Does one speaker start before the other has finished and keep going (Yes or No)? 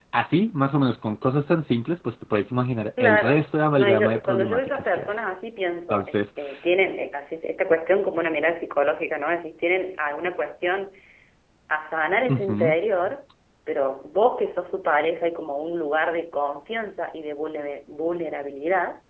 Yes